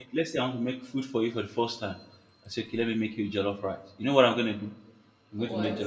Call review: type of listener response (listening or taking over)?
listening